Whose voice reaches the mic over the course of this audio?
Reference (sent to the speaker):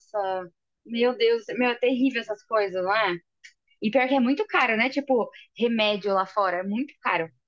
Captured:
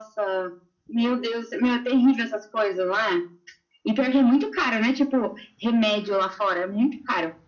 echo only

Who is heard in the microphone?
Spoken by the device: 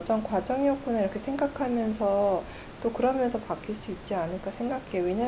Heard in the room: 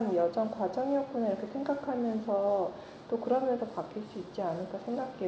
echo only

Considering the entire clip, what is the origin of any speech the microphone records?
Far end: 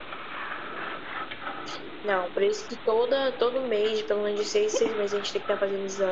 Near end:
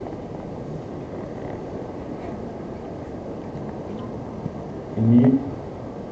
user only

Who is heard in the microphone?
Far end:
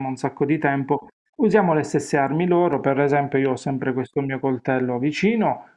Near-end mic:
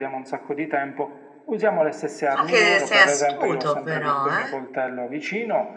both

